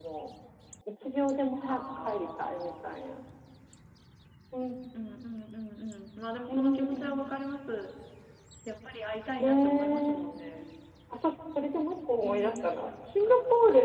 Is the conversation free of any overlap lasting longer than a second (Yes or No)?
No